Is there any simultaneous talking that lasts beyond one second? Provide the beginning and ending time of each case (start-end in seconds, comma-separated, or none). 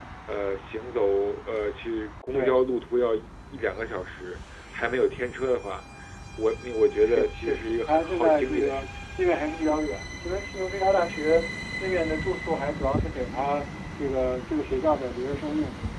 7.0-8.9